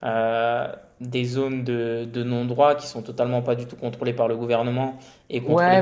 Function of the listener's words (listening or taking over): taking over